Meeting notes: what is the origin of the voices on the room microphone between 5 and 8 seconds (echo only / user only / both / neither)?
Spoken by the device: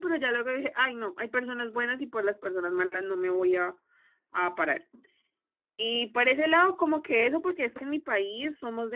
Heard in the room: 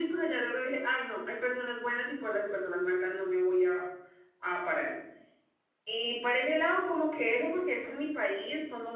echo only